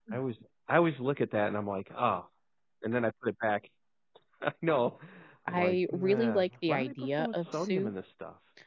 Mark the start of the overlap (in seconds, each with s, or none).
5.5 s